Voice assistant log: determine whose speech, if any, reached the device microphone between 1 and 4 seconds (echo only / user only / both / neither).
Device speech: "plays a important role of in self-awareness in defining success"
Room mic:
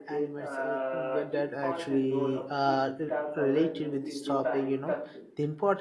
both